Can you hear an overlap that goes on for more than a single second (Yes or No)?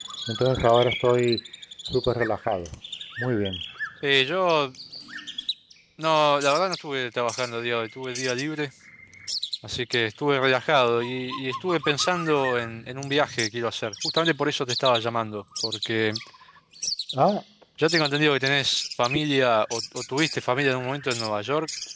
No